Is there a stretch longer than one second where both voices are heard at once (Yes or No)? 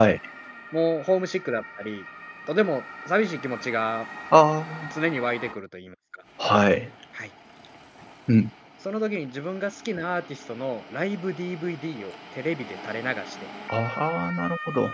No